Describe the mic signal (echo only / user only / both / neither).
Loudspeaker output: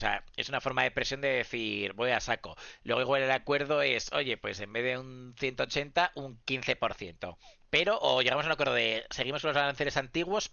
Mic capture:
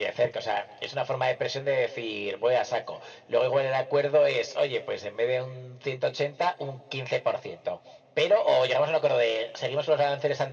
echo only